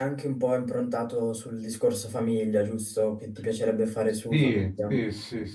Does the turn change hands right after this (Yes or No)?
Yes